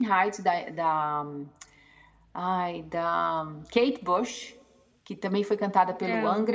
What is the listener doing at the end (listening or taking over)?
listening